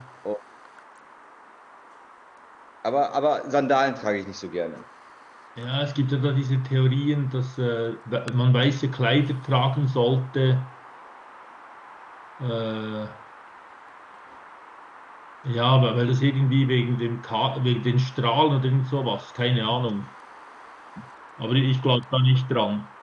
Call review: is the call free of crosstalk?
Yes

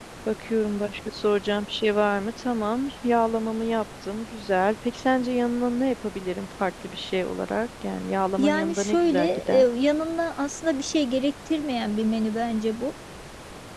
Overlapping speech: Yes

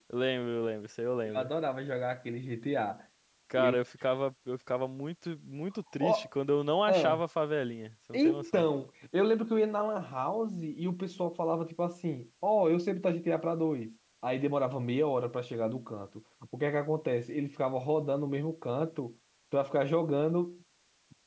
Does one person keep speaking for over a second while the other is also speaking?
No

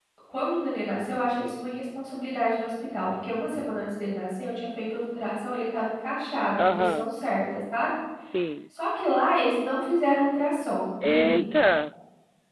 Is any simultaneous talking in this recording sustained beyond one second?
No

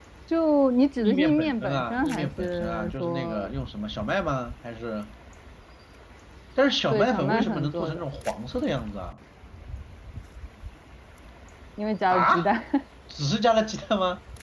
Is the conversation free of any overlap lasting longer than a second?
No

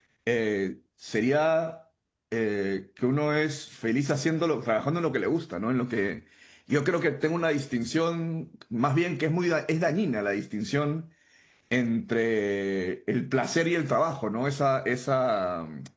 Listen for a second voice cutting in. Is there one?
No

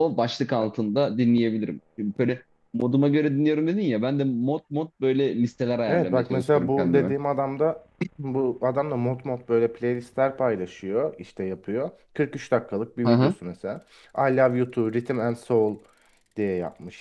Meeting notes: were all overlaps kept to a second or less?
No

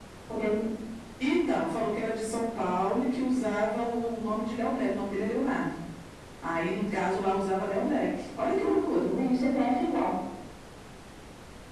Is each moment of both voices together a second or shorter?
Yes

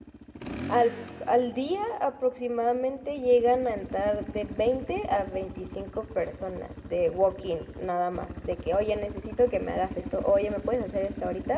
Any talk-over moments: No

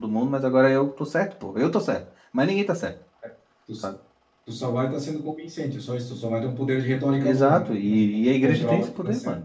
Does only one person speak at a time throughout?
No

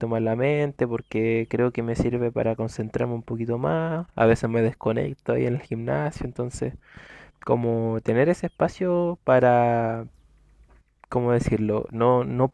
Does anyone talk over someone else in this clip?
No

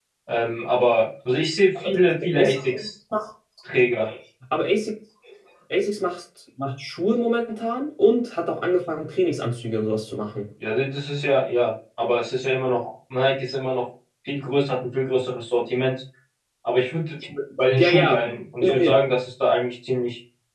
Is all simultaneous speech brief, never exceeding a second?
Yes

